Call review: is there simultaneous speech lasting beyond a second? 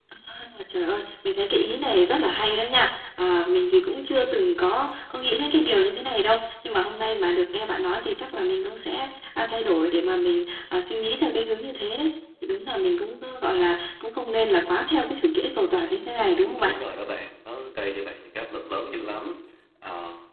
No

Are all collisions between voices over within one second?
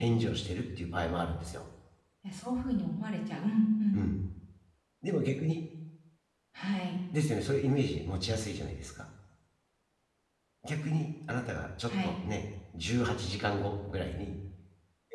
Yes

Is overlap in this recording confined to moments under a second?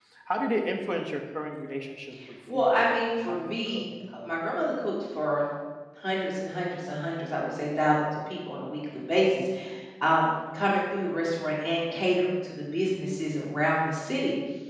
No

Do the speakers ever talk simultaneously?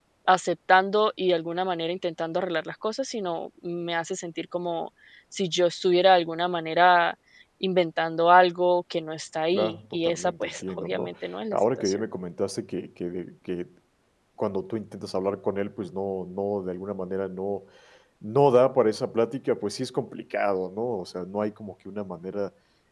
Yes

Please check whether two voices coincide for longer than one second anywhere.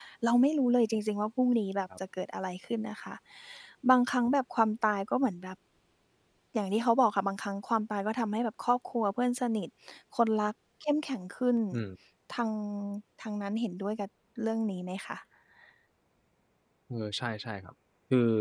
No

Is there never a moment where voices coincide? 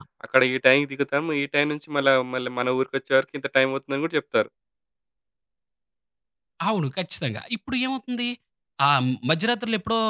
Yes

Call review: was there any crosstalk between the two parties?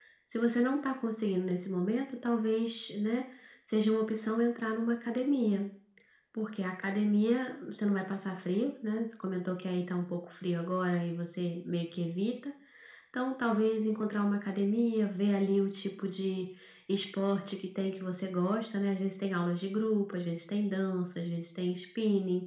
No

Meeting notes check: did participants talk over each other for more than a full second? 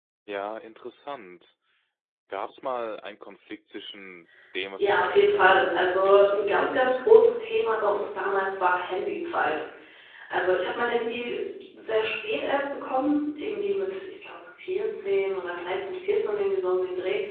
Yes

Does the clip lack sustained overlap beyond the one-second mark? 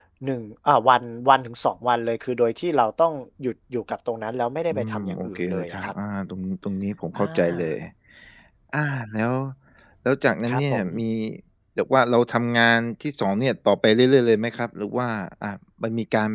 No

